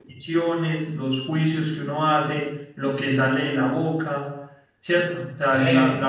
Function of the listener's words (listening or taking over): listening